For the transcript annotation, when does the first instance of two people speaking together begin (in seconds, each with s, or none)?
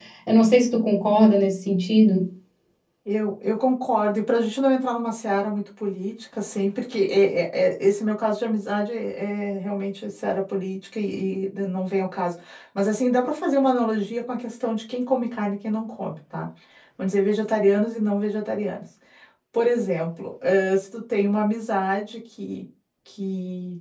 none